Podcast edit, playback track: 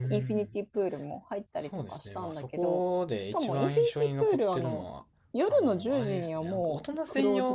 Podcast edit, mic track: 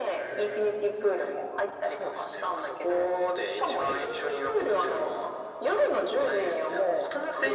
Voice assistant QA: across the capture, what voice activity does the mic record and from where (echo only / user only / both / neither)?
echo only